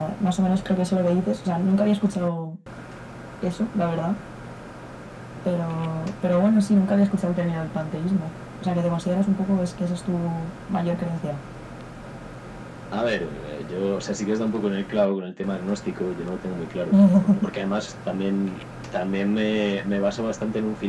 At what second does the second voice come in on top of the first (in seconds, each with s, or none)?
none